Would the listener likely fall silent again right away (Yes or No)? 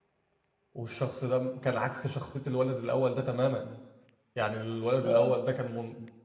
Yes